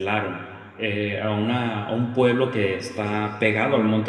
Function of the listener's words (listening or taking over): listening